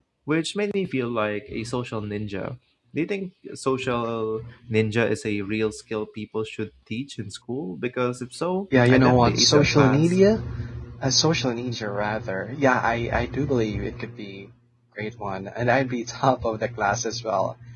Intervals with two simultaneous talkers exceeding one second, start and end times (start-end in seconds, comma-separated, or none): 8.8-10.2